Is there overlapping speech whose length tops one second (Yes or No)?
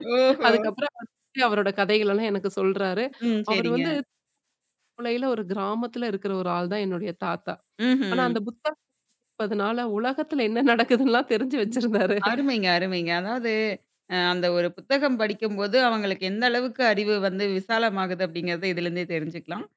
No